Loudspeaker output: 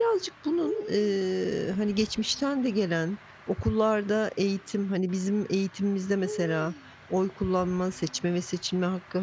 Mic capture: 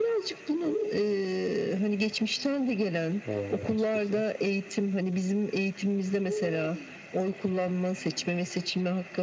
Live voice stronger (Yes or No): No